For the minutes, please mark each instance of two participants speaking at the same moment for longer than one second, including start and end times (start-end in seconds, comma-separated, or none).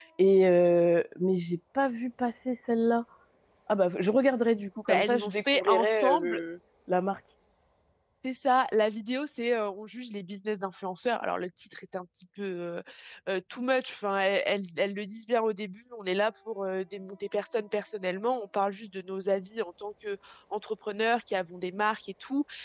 4.9-6.4